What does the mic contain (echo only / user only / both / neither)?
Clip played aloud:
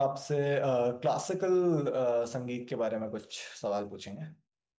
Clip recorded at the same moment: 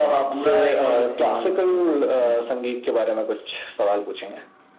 both